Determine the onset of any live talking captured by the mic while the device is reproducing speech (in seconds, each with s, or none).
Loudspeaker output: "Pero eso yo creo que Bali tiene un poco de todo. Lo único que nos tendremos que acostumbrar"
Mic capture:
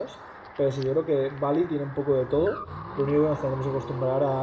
none